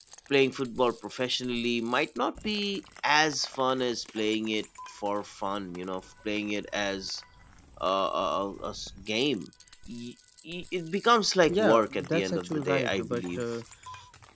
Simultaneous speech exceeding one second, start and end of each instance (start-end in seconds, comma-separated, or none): 11.5-13.4